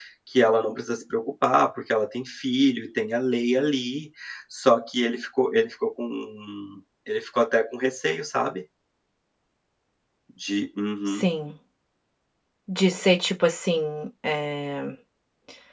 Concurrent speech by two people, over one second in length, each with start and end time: none

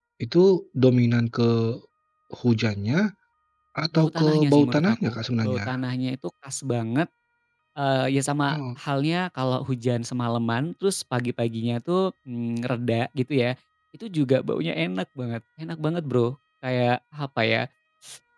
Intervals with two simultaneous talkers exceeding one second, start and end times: 3.9-5.6

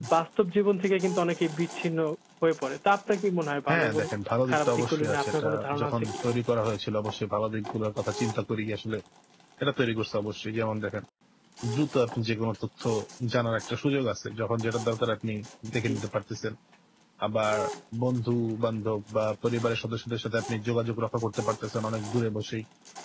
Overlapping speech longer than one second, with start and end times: 4.5-6.1

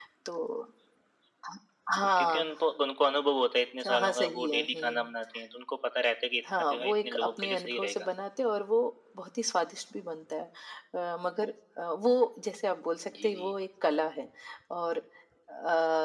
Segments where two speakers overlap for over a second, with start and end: 3.8-5.1, 6.7-8.1

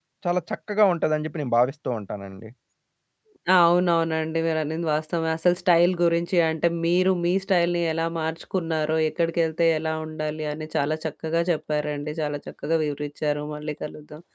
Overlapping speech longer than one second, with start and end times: none

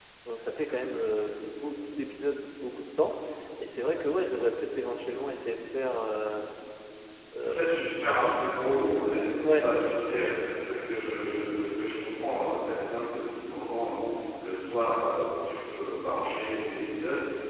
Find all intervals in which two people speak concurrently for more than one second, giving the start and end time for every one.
none

